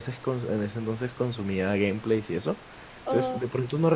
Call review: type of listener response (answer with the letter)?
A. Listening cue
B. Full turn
A